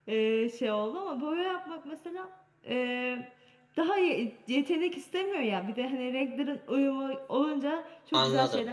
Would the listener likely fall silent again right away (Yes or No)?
No